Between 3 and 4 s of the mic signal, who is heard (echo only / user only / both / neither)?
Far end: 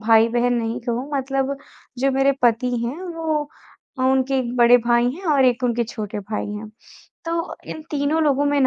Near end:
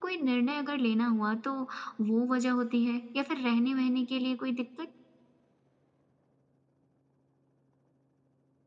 user only